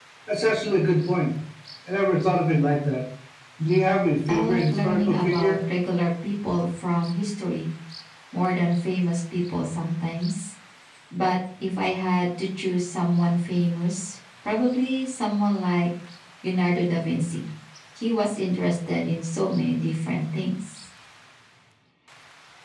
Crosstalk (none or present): present